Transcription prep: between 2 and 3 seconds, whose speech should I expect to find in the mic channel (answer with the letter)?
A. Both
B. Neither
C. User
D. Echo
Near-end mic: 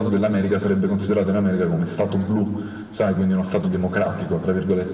A